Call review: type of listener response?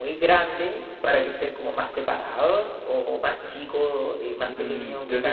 taking over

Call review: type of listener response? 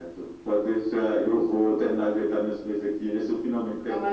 taking over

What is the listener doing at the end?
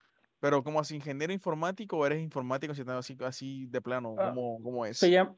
taking over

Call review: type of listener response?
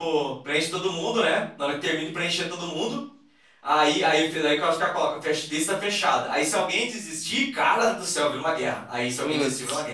listening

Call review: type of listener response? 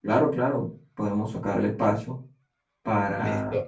listening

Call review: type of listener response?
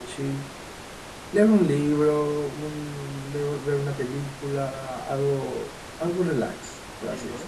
taking over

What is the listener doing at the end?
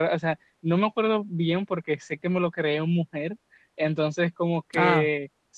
listening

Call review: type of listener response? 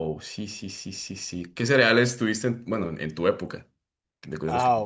taking over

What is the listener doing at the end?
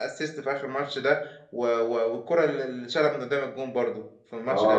taking over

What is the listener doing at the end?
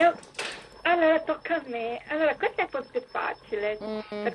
listening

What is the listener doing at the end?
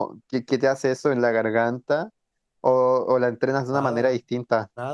taking over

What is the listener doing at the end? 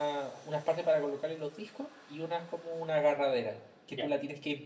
listening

